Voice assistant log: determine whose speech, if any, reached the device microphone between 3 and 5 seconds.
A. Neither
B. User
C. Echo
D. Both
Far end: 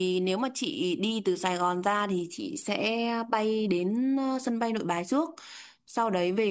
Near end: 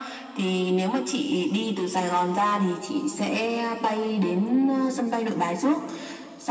C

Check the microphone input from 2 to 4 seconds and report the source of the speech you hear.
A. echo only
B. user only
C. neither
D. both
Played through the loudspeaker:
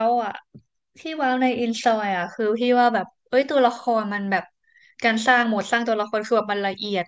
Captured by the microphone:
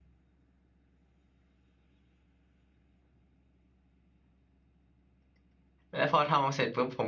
C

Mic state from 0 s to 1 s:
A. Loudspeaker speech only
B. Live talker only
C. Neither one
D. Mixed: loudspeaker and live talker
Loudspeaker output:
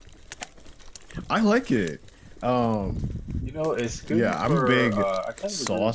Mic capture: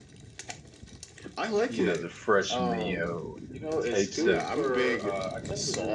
C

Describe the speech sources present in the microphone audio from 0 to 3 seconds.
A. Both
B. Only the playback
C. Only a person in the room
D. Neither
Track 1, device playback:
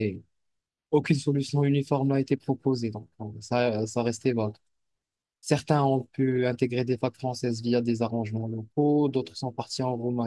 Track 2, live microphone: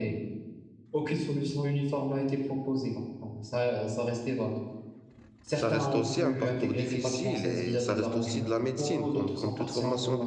B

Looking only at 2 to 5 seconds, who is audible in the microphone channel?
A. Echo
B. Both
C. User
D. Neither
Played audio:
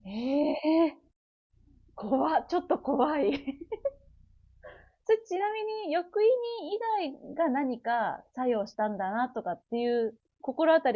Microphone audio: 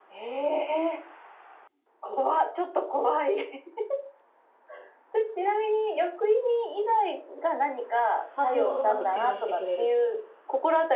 A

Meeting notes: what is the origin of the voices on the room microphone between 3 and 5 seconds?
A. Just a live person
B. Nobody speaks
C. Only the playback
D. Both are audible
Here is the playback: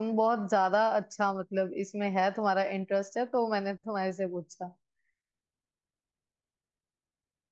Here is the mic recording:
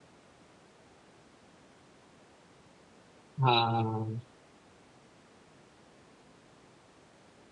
A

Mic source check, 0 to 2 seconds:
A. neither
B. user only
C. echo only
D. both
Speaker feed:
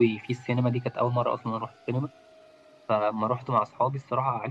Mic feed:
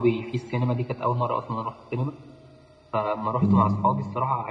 C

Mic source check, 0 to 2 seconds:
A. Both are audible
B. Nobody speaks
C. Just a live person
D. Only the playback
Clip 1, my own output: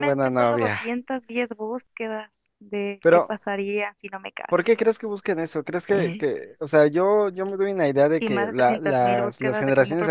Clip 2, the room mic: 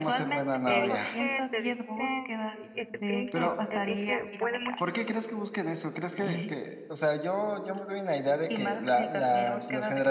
A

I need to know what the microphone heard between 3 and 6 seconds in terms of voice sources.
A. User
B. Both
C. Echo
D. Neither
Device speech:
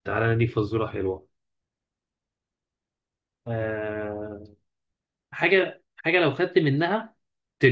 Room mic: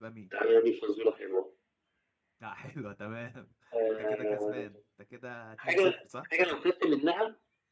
B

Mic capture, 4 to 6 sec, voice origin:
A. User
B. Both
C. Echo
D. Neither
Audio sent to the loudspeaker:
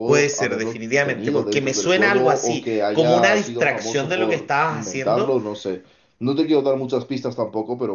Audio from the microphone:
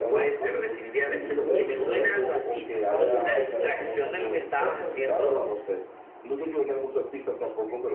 B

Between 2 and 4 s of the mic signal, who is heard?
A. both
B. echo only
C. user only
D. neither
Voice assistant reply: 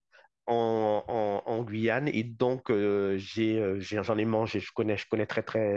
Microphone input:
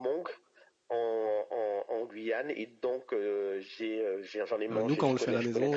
B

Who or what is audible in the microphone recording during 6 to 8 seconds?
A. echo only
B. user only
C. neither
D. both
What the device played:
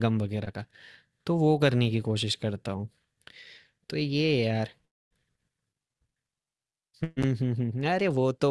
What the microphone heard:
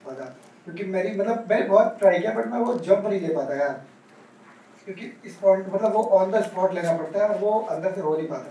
B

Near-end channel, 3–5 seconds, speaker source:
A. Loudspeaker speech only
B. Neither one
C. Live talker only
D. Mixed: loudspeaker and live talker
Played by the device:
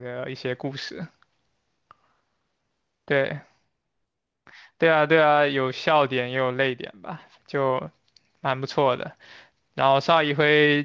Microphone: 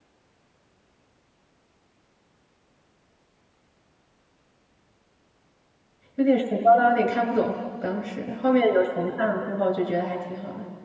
B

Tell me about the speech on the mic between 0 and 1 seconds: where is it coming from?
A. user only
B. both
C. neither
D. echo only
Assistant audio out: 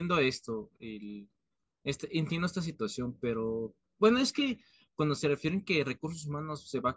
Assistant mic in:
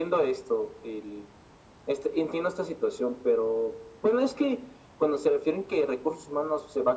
D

